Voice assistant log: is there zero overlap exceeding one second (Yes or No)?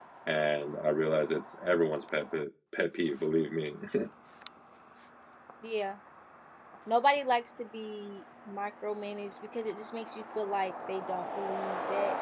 Yes